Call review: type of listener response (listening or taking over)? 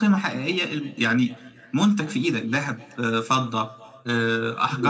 taking over